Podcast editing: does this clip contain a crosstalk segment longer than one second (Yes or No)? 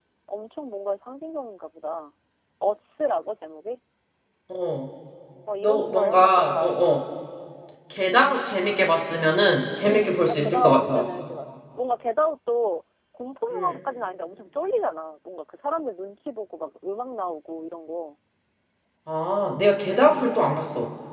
Yes